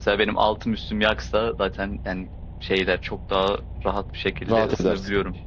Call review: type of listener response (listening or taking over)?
taking over